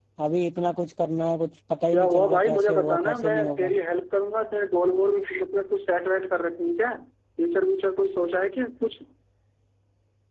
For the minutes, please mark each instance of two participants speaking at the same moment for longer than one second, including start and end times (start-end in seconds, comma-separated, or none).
1.9-3.7